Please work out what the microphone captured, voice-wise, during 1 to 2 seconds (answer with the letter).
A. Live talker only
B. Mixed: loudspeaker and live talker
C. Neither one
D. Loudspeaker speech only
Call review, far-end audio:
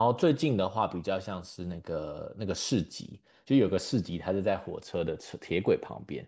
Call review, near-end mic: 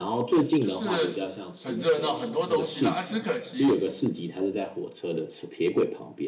B